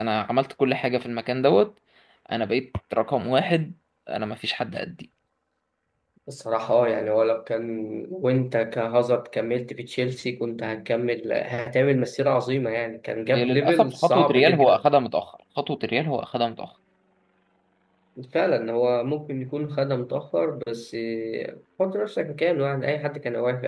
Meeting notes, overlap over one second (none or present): present